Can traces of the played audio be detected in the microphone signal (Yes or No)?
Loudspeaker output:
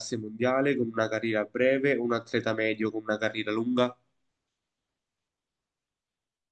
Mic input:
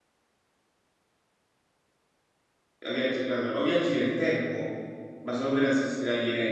No